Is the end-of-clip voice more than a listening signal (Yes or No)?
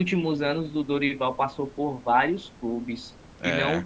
No